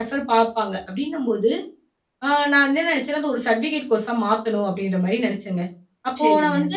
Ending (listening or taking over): listening